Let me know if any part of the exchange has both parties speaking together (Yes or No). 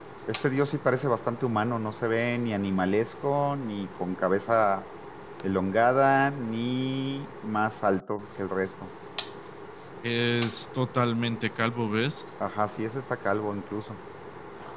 No